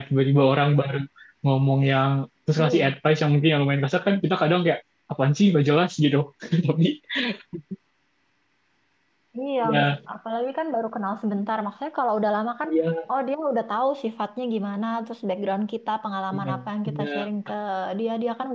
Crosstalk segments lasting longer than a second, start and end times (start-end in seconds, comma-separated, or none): none